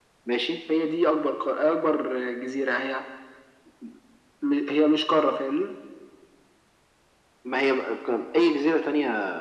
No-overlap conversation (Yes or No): Yes